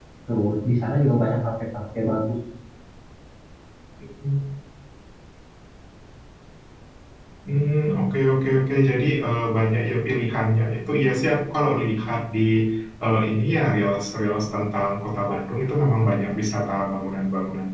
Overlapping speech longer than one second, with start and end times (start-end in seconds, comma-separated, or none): none